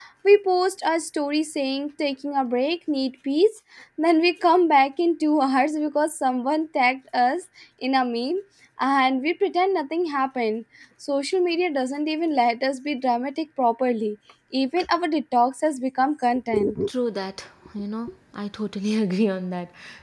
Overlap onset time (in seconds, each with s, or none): none